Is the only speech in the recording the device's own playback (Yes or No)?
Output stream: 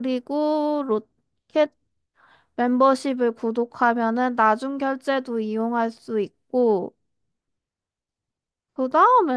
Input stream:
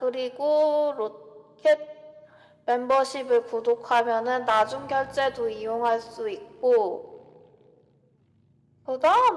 Yes